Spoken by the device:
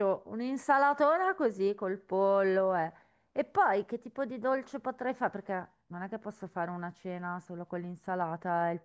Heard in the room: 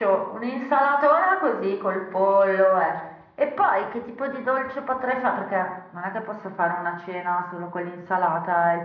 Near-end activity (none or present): none